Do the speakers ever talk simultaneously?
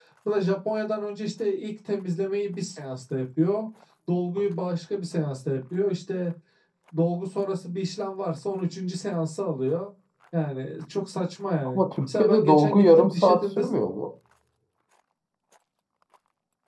Yes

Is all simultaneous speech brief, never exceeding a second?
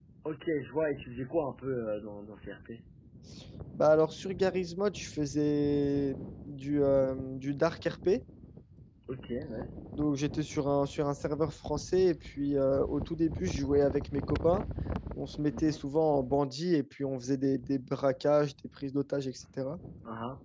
Yes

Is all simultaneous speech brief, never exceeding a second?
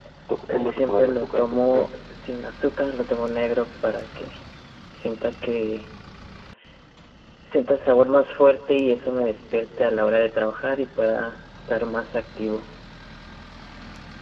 No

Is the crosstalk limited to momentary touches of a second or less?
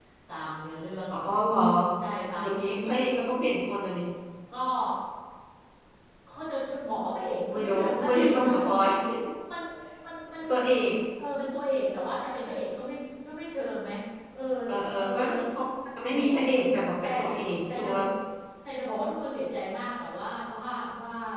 No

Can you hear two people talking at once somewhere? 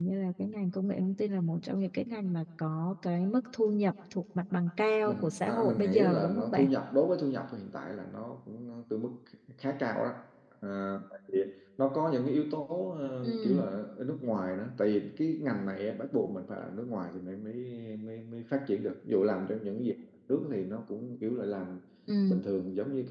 Yes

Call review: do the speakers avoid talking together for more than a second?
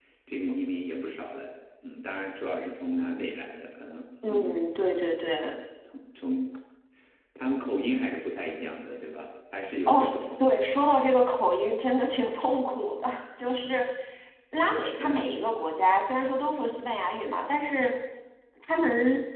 Yes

